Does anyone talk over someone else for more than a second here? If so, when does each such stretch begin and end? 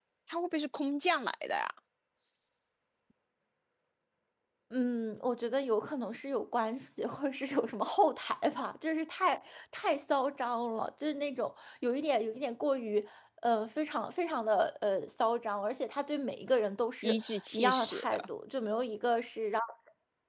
17.0-18.2

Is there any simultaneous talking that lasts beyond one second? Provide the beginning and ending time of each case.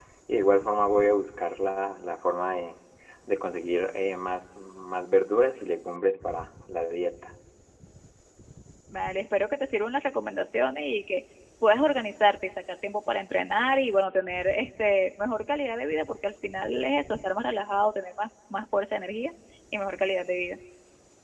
none

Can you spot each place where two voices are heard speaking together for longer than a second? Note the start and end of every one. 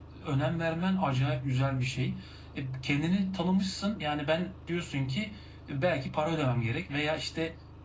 none

